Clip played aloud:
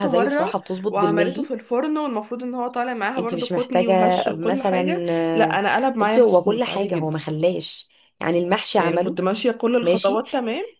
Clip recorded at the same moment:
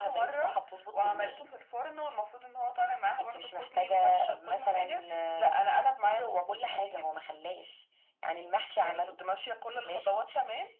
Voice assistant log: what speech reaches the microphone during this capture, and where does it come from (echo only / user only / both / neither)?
echo only